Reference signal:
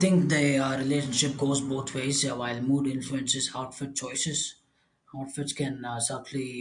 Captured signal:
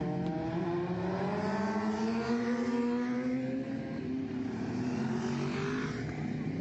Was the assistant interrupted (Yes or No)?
No